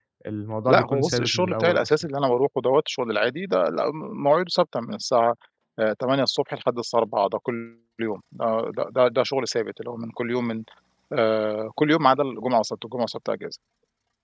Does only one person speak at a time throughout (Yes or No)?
No